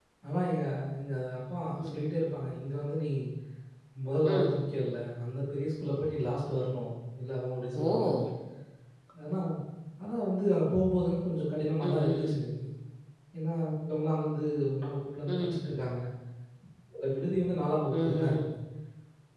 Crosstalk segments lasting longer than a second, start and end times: none

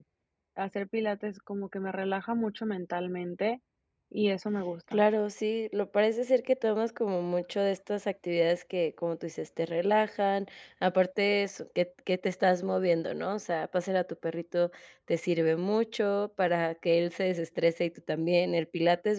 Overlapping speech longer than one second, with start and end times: none

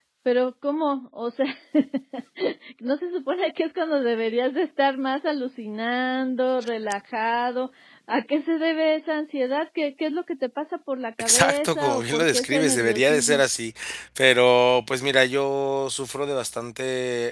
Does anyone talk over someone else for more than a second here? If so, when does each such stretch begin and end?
11.2-13.4

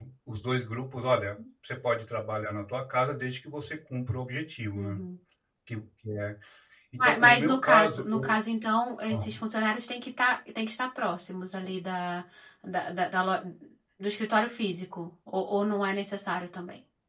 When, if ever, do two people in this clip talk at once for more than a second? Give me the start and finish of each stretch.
7.0-8.3

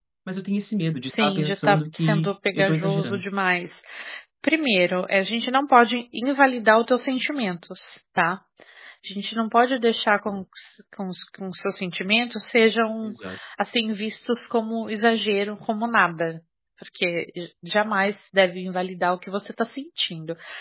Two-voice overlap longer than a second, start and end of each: 1.0-3.2

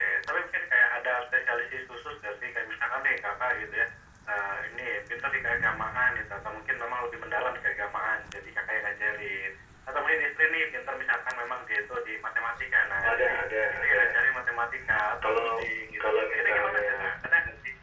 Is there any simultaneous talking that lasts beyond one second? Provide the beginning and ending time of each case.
15.2-17.1

